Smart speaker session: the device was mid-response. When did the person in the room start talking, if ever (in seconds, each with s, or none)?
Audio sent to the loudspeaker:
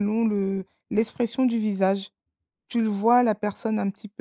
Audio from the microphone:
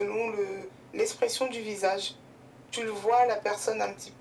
none